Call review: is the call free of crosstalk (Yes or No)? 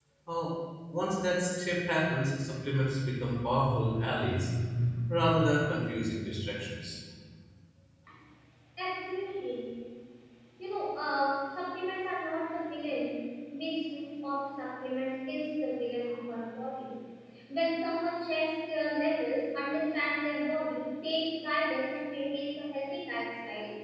Yes